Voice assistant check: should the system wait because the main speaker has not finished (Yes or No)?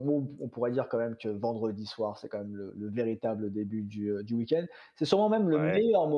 Yes